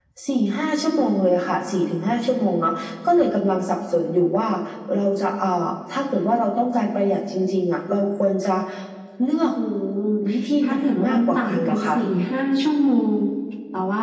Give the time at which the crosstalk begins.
10.6 s

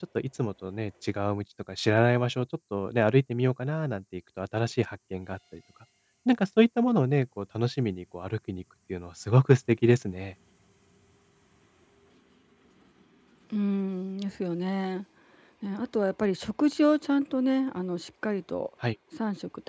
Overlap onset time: none

